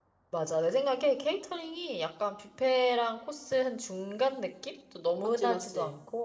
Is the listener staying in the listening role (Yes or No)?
Yes